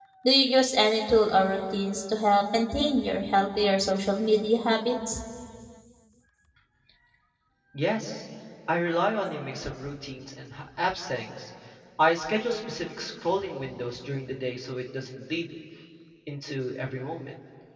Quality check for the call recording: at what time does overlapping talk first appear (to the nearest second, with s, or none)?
none